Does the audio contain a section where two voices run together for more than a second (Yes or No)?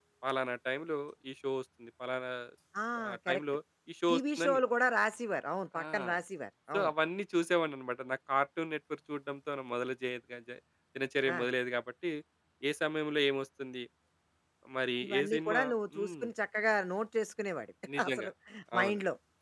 Yes